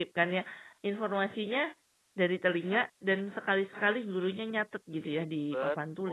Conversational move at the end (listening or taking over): taking over